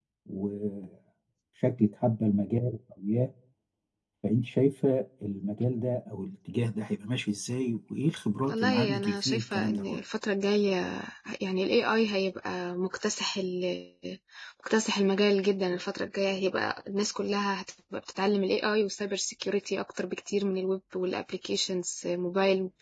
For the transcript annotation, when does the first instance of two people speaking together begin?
8.4 s

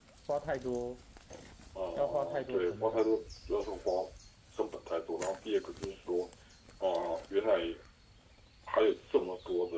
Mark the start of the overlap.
2.0 s

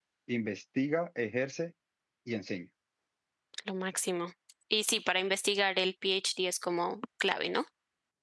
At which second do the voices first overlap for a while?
none

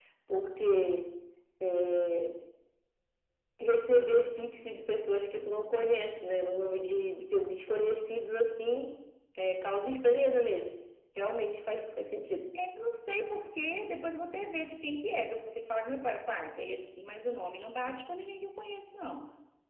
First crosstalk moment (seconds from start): none

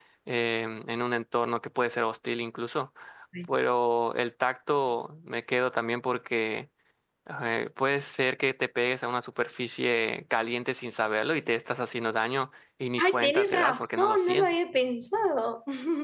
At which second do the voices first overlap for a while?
13.0 s

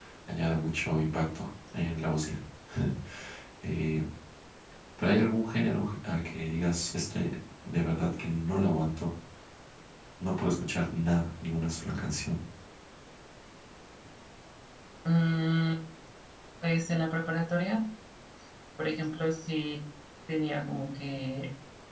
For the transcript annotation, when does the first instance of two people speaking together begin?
none

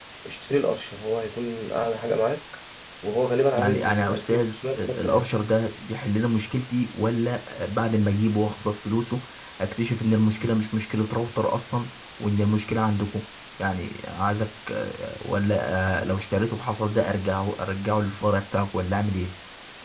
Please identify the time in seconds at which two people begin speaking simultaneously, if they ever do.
3.5 s

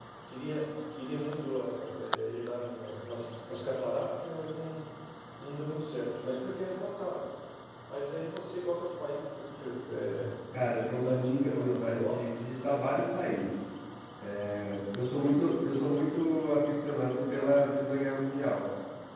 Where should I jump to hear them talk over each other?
10.8 s

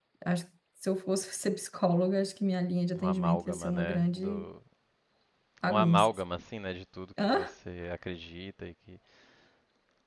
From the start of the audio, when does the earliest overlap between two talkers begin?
3.0 s

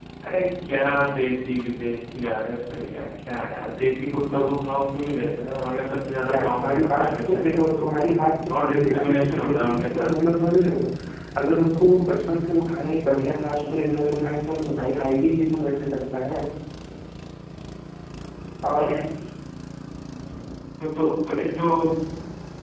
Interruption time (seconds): 6.3 s

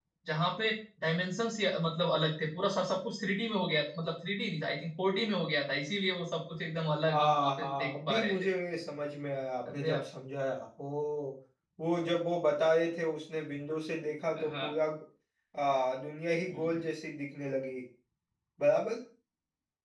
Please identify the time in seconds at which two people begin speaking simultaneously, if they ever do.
7.1 s

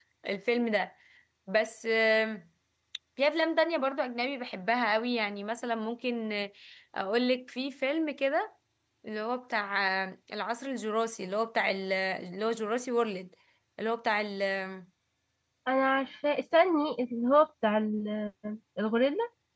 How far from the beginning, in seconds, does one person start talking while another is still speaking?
none

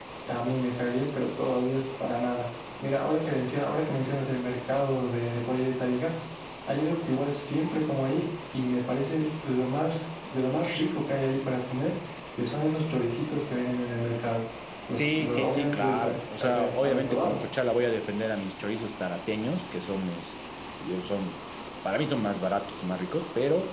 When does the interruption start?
14.9 s

